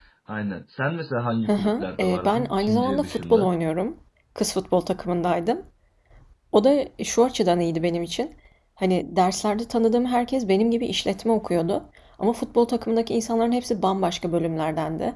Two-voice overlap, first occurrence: 1.5 s

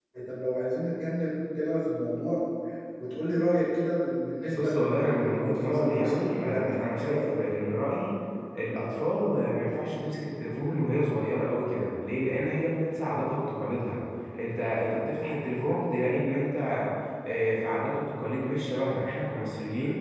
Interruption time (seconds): 4.5 s

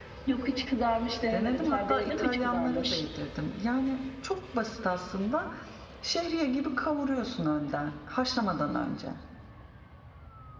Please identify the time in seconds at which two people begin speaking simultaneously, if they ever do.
1.3 s

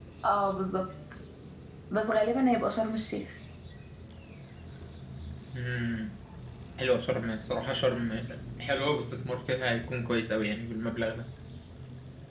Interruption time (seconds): none

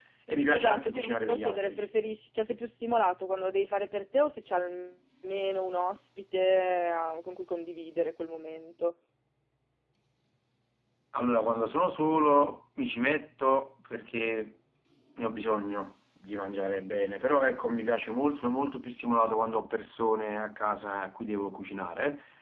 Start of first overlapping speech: 0.5 s

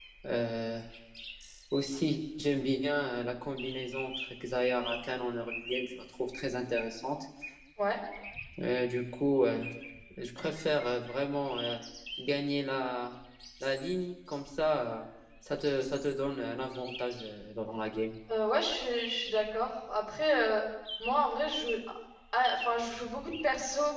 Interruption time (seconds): none

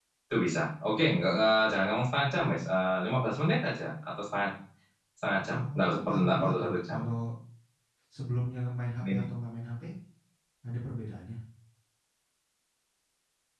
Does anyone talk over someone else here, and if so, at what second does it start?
5.6 s

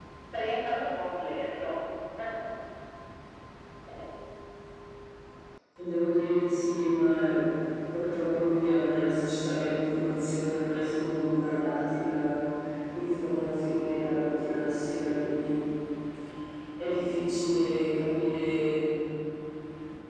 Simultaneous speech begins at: none

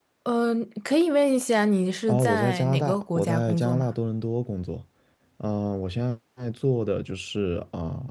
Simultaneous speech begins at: 2.1 s

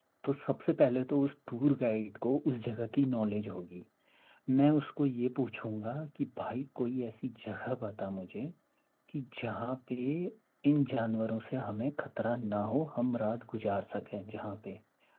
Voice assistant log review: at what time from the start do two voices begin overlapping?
none

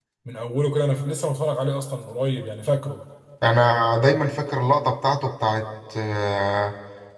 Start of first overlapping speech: none

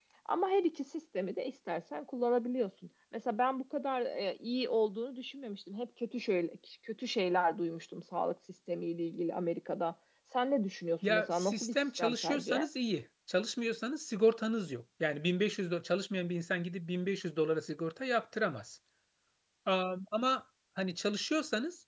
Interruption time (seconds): 11.0 s

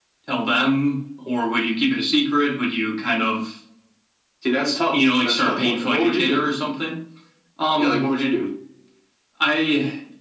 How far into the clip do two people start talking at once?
4.9 s

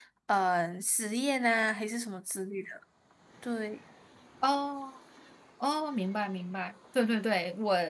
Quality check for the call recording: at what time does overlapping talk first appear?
none

